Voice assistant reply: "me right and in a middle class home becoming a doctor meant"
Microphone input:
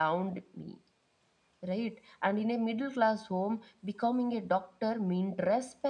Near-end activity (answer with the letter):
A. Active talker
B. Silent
B